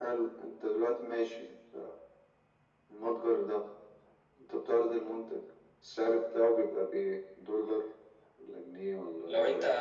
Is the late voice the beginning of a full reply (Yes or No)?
Yes